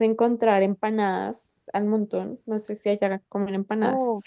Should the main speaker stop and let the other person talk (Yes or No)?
Yes